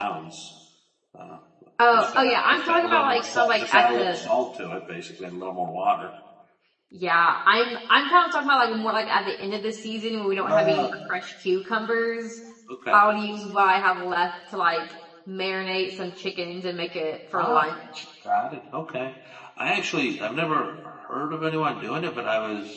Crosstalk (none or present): present